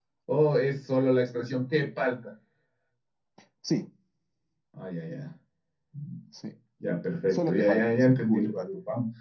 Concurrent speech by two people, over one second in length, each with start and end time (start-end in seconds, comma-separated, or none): 7.3-8.7